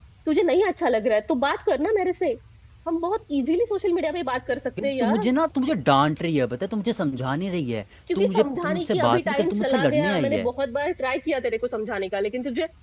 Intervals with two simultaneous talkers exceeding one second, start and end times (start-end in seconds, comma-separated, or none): 8.2-10.5